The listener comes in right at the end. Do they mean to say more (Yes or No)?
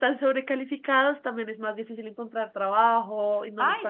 Yes